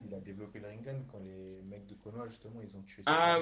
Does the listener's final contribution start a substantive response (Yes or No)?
Yes